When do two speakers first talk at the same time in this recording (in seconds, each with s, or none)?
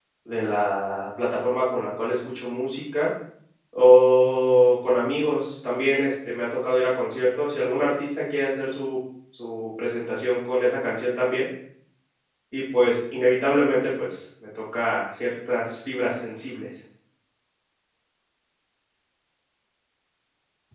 none